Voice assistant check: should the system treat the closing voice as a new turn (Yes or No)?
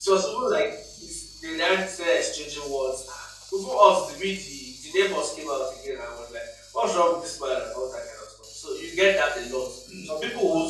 No